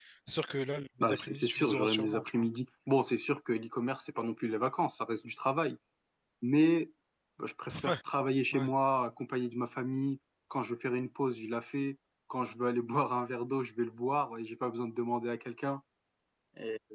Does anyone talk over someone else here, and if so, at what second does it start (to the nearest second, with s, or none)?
1 s